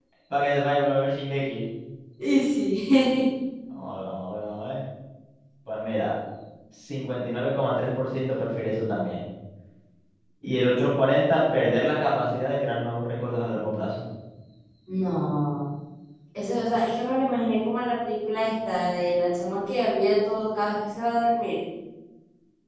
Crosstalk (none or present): none